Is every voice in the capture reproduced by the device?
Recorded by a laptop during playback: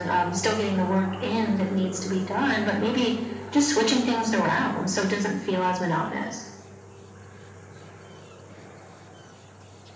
Yes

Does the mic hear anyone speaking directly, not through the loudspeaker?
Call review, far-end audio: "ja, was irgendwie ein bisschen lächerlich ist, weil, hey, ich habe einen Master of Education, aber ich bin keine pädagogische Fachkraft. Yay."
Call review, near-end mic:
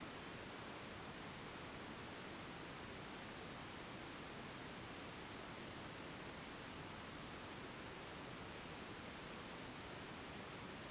No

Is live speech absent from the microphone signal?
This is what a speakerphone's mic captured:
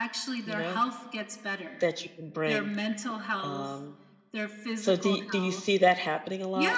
No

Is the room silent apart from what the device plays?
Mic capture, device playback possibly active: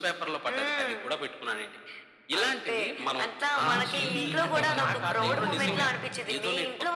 No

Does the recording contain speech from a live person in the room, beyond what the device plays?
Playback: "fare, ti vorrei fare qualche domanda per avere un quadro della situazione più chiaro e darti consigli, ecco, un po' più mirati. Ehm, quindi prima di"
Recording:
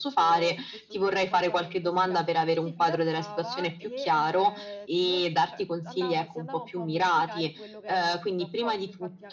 Yes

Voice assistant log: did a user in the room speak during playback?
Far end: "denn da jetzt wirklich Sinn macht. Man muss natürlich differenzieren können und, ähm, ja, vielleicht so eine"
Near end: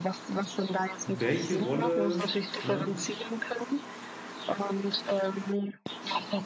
Yes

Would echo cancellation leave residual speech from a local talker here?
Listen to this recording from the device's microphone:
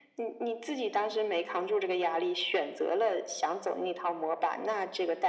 No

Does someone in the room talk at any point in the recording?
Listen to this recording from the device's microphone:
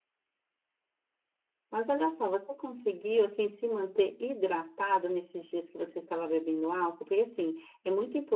Yes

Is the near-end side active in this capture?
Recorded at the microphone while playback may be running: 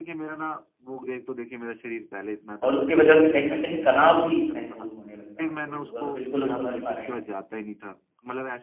Yes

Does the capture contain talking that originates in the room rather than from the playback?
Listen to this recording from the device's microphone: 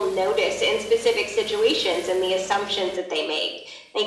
No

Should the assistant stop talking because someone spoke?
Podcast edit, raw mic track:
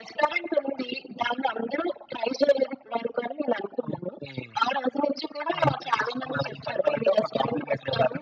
No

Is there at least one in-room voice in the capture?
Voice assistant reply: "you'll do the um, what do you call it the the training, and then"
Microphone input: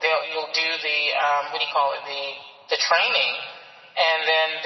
No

